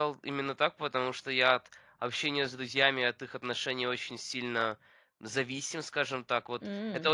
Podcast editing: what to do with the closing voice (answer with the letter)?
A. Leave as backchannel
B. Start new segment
A